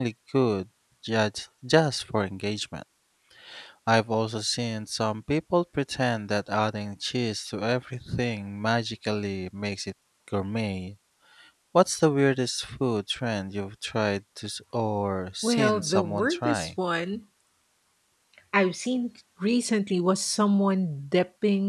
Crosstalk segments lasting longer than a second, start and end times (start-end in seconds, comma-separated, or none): 15.4-16.7